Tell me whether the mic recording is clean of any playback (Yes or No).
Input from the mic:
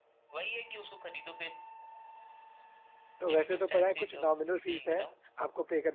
No